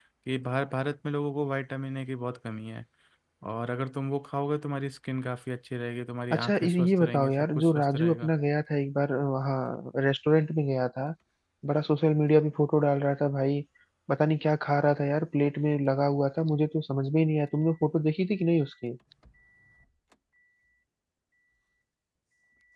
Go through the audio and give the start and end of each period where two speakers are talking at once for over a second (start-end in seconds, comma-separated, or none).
6.3-8.3